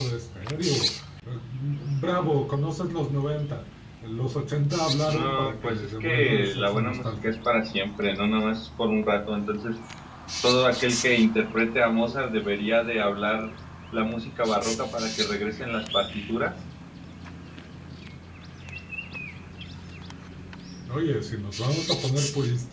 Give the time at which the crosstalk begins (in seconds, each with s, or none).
5.1 s